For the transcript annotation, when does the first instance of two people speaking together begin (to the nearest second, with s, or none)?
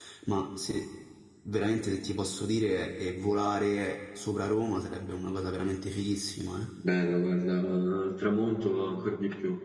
none